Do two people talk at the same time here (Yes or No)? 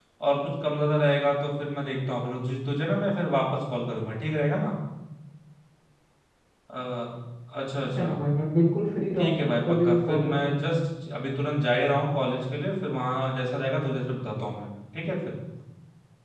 Yes